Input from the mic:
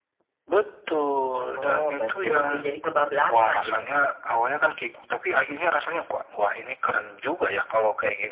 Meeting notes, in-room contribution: present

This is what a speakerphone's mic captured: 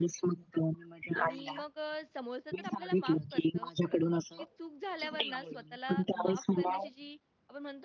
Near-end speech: present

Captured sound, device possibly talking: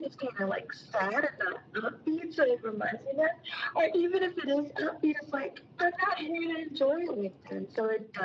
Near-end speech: none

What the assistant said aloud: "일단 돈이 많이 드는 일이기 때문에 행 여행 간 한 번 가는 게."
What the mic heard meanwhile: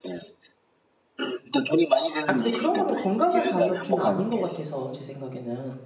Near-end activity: present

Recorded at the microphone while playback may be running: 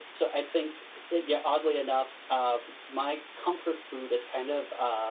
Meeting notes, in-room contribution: none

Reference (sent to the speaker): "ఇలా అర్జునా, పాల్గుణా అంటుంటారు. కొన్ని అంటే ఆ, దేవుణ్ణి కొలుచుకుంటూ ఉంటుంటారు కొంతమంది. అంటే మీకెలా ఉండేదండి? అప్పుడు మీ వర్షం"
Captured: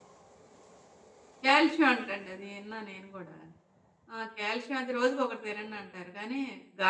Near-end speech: present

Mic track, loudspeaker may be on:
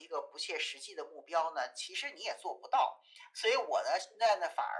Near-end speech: none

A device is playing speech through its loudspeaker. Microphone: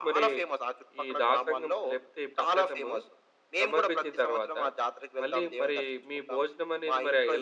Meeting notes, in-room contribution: present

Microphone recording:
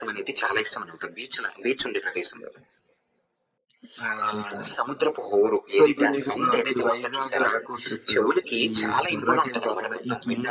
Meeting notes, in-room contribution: none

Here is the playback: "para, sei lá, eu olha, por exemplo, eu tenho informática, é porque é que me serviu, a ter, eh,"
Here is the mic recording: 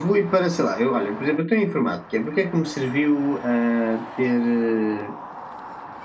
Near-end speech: none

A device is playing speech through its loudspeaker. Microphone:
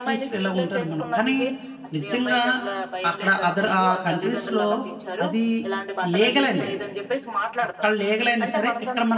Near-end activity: present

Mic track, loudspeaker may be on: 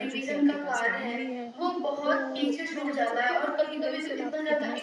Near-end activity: present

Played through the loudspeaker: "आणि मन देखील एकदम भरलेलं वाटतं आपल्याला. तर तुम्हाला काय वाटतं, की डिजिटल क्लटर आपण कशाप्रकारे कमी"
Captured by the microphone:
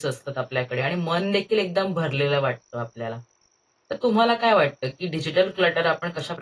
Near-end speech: none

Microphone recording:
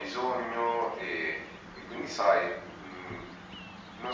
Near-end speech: none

